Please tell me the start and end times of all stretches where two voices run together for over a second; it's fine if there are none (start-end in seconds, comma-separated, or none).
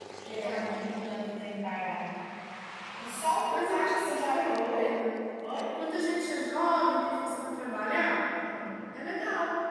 3.5-4.9